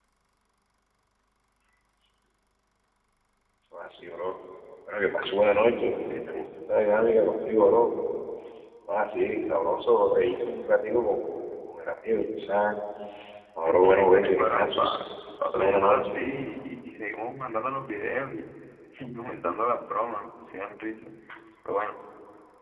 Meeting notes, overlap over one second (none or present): present